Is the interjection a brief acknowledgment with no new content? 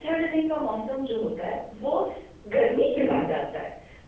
Yes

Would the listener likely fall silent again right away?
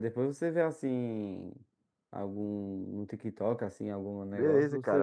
No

